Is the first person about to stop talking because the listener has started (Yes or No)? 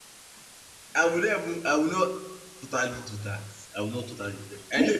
No